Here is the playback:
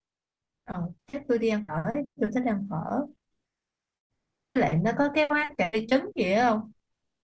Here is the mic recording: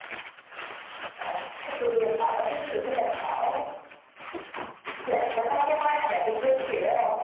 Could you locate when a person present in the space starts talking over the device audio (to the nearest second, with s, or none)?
none